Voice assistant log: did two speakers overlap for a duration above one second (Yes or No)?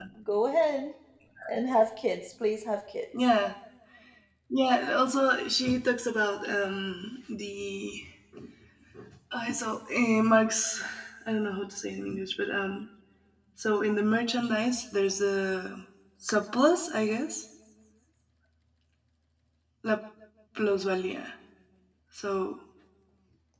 No